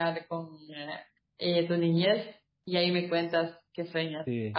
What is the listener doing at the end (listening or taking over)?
listening